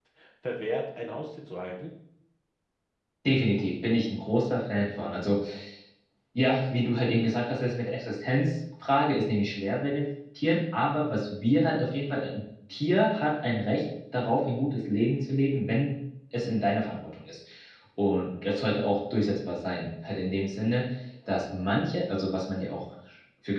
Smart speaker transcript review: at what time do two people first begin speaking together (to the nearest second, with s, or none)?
none